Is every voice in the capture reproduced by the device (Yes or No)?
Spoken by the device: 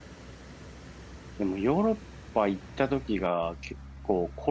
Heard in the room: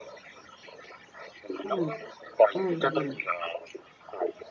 No